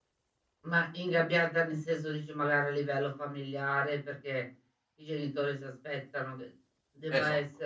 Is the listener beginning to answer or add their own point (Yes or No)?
No